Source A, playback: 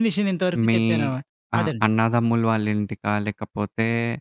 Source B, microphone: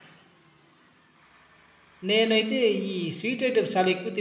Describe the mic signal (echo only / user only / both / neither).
user only